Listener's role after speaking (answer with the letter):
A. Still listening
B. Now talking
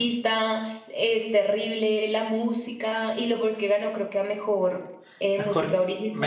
B